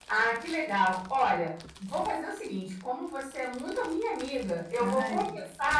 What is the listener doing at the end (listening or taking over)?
listening